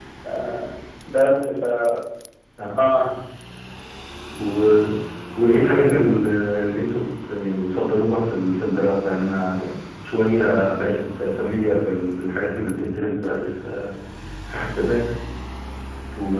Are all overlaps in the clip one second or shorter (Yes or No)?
Yes